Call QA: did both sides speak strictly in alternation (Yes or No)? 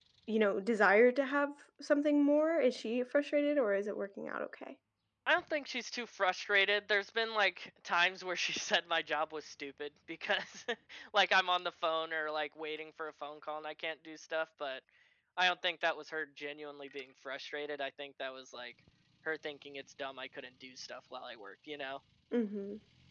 Yes